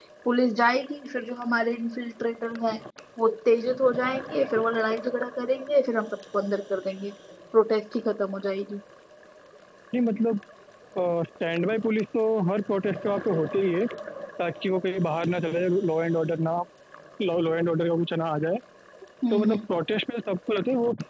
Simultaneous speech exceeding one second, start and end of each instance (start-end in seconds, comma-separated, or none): none